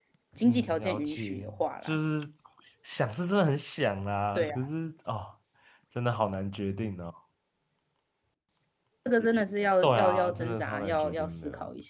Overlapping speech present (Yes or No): Yes